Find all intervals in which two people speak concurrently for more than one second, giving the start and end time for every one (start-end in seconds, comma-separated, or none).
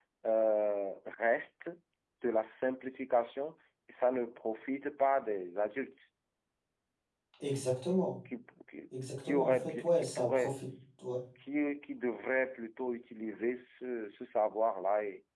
9.3-10.6